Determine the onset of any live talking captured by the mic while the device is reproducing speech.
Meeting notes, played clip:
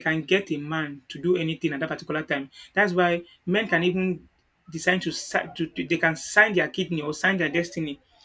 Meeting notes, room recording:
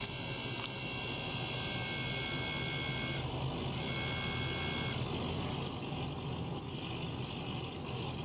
none

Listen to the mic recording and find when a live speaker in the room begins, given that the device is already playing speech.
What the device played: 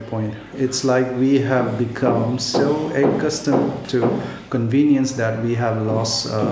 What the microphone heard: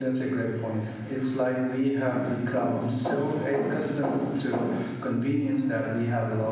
none

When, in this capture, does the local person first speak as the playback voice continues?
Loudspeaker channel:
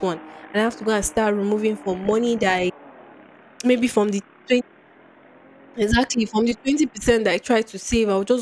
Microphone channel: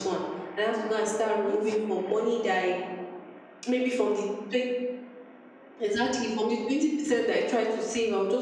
1.4 s

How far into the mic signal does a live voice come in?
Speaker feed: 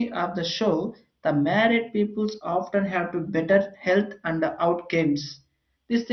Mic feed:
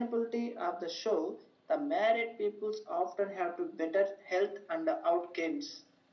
none

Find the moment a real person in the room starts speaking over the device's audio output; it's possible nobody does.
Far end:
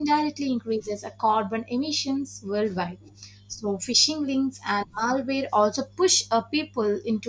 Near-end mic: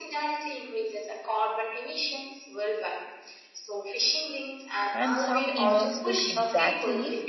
4.9 s

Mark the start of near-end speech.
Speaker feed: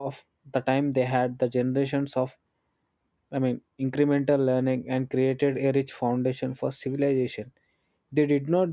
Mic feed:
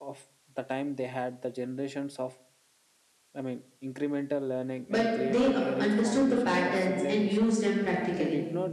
4.9 s

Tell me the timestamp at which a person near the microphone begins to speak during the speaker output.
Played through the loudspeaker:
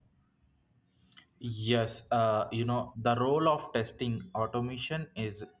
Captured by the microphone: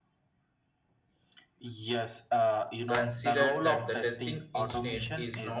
2.9 s

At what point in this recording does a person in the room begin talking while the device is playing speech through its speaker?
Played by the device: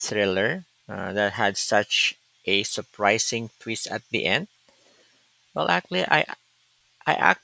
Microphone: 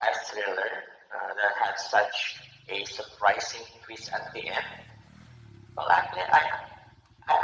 none

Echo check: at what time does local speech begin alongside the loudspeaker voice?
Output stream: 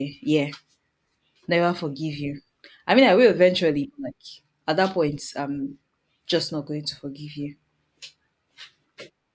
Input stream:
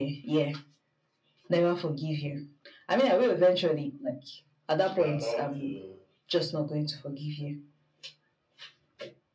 4.9 s

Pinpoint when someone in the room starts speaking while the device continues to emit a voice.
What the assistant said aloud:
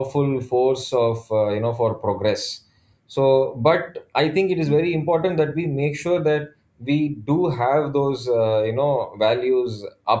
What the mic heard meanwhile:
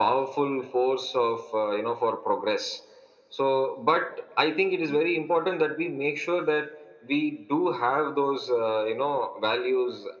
none

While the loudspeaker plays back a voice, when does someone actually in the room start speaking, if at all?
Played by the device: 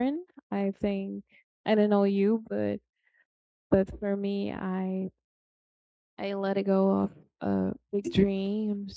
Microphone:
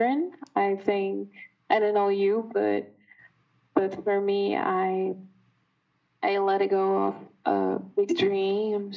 none

